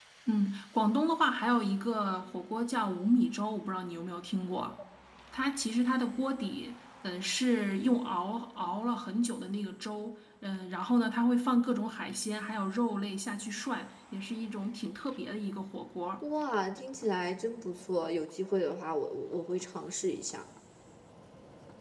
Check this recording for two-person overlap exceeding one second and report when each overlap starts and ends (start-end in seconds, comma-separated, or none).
none